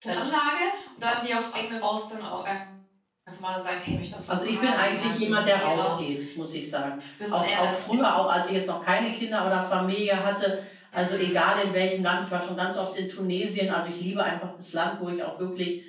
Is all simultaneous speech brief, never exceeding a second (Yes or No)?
No